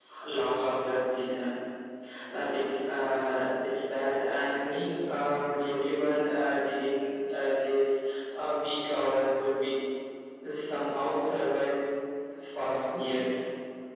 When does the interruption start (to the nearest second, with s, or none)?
none